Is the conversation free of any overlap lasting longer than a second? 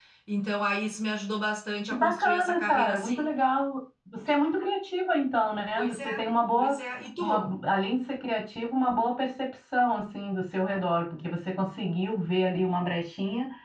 No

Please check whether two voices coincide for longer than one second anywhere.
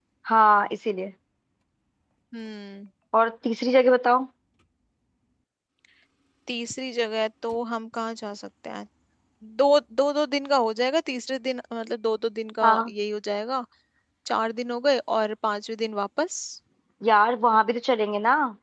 No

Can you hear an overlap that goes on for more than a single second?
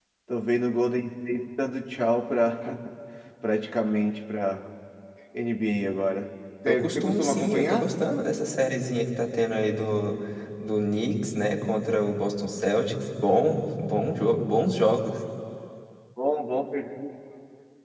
Yes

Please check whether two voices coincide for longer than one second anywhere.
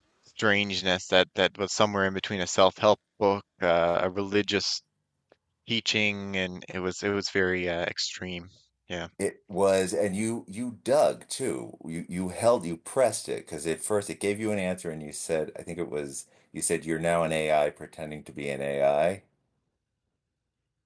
No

